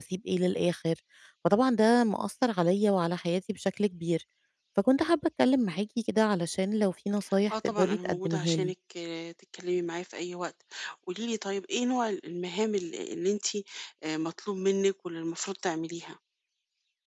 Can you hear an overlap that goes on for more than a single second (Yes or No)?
Yes